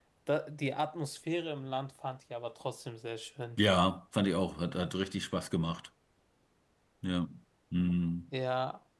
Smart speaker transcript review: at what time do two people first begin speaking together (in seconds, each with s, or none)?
none